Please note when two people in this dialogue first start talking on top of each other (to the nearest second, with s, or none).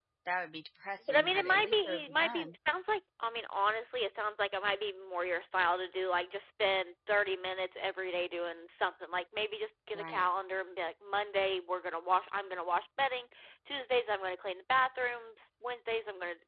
1 s